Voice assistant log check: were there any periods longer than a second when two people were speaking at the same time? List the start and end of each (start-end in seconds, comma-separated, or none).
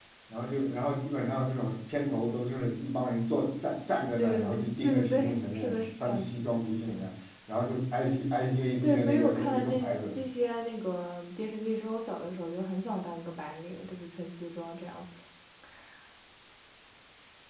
4.2-6.3, 8.8-10.2